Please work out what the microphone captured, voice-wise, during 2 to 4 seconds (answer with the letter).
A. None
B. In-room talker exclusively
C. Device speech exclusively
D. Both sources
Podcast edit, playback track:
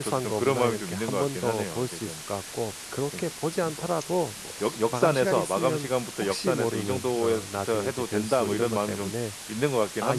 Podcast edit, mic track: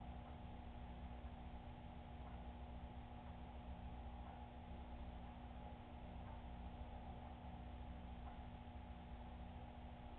A